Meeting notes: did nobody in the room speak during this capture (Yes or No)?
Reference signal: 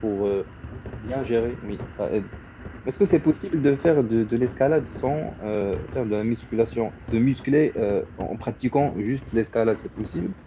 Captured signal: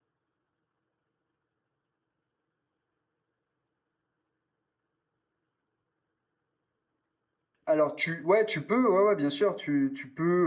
No